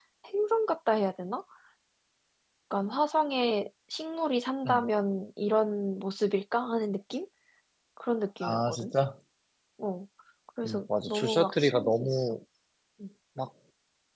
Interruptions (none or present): present